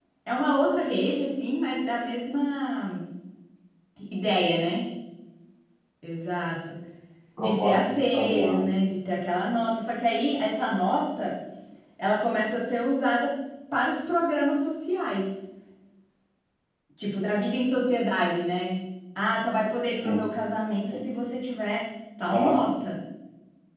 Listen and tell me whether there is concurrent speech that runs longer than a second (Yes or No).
Yes